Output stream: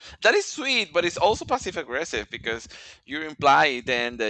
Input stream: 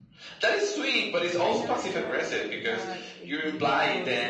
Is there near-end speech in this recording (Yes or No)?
Yes